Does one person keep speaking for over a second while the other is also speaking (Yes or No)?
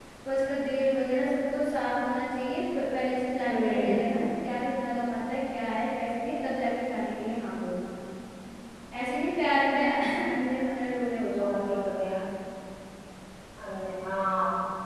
No